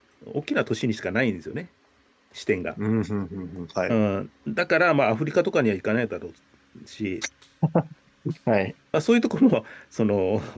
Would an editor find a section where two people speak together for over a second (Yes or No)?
No